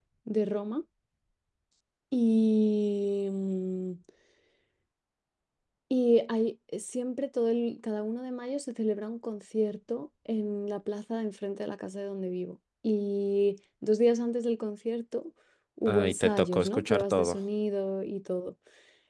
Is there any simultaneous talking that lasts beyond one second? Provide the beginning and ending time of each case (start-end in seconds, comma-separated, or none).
15.9-17.4